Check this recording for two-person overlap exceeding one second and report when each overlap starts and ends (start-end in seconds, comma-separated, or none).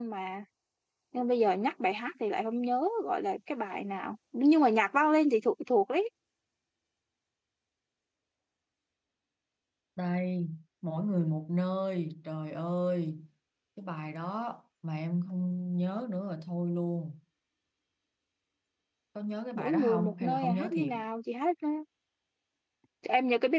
19.6-20.9